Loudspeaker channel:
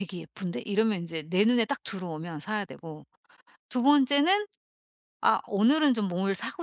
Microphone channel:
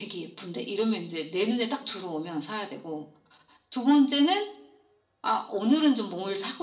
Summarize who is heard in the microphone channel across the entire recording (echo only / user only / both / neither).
echo only